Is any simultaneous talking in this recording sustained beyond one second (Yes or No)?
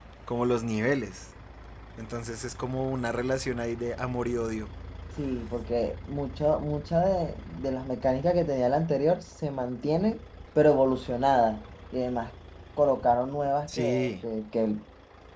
No